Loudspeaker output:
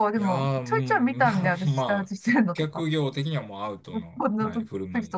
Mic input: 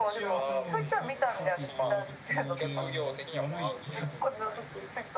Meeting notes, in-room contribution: present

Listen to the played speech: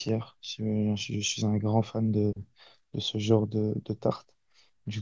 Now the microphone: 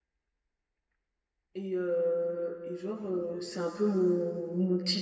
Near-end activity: present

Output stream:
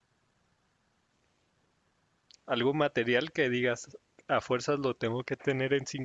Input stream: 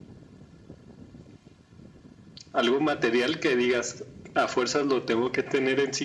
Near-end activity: none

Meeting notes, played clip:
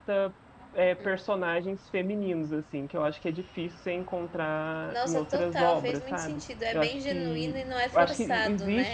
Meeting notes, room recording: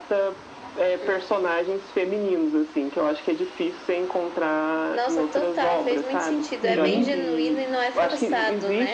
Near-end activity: present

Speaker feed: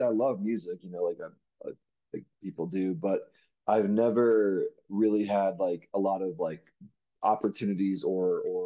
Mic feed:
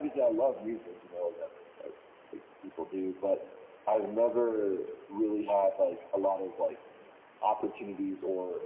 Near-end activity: none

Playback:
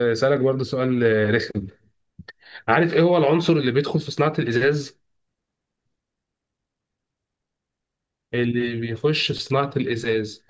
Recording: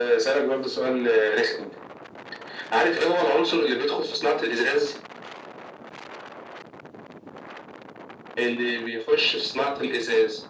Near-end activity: none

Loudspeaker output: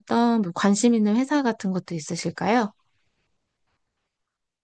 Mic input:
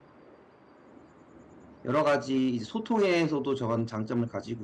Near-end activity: present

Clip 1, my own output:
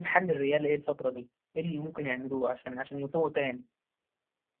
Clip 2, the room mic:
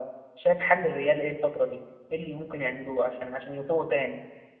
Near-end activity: none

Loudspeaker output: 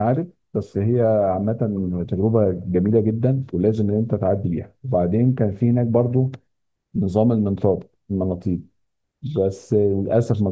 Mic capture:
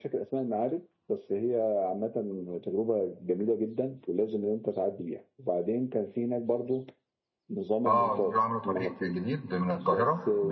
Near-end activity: present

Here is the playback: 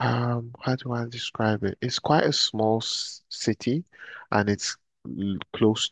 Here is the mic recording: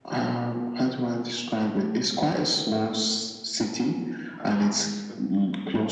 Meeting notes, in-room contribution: present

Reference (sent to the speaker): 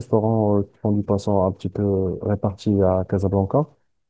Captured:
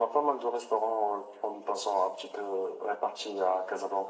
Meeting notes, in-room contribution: none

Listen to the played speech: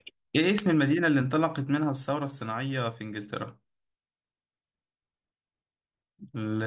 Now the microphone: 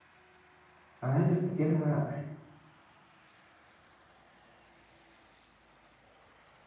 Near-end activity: present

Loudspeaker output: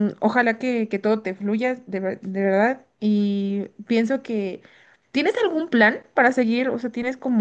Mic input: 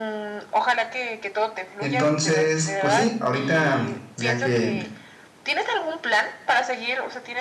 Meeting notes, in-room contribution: present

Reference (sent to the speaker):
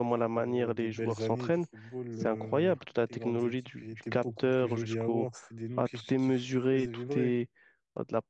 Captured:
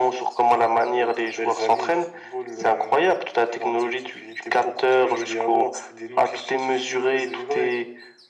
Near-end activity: none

